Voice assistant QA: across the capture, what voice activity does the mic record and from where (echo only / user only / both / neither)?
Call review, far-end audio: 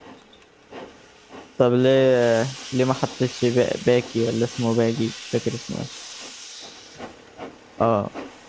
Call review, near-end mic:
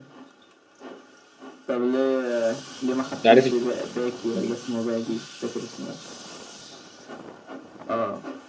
both